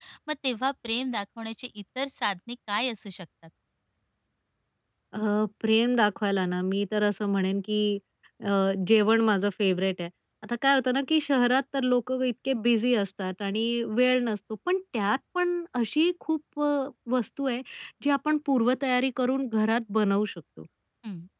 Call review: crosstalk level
none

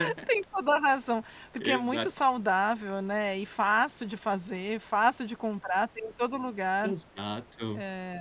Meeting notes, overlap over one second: none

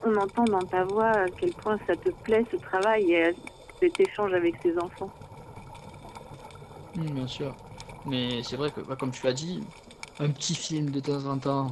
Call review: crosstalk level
none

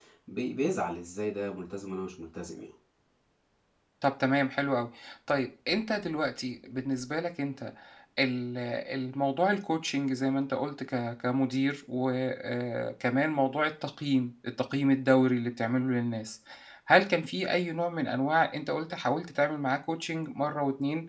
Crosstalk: none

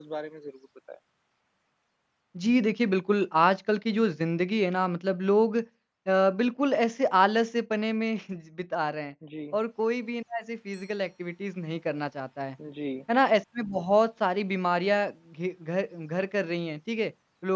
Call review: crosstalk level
none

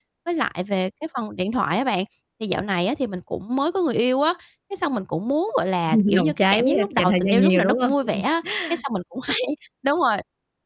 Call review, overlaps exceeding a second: present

